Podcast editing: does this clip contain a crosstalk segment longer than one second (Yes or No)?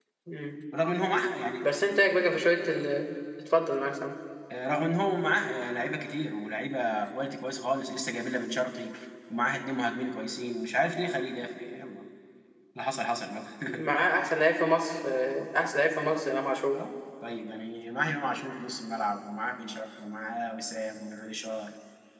No